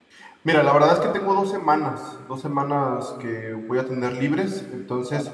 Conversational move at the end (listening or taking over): listening